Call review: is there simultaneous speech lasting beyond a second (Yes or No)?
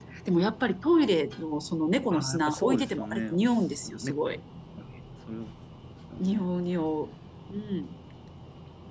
Yes